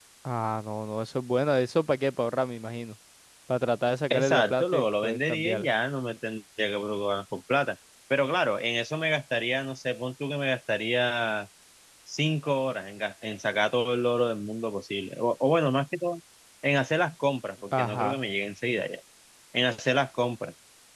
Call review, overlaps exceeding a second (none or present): present